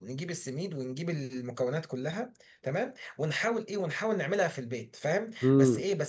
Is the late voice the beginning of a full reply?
No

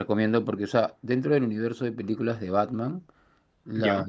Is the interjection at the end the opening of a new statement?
No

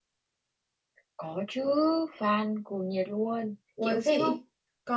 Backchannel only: No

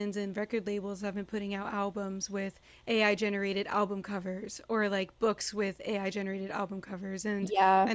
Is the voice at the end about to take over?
No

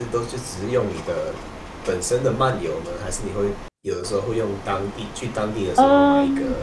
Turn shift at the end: Yes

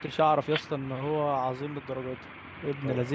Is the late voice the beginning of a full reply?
Yes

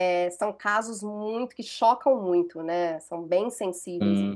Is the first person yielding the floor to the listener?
Yes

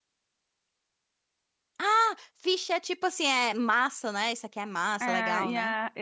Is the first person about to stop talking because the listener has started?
Yes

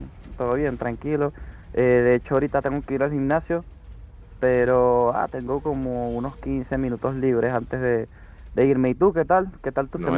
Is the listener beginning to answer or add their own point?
Yes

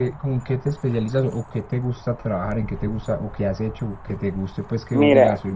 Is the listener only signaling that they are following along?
No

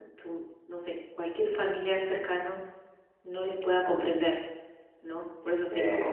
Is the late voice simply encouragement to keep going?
Yes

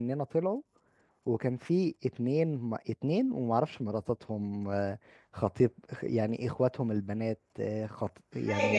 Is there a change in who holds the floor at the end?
No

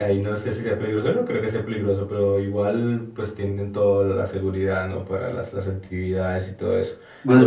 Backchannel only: Yes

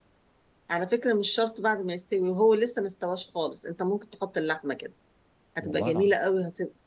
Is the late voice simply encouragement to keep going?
Yes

